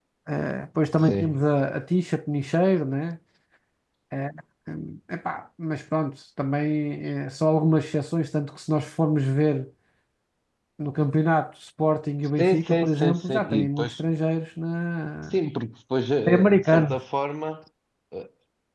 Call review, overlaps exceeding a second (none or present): present